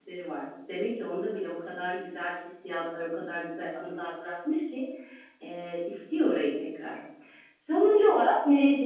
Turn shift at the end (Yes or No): No